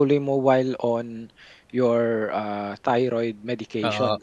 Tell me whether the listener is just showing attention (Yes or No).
No